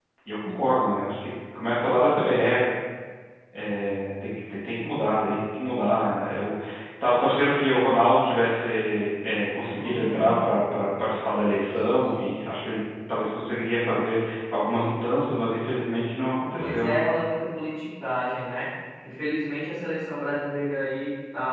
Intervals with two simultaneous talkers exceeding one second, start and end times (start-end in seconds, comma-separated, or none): none